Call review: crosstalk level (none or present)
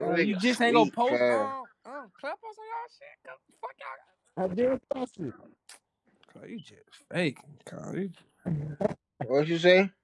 present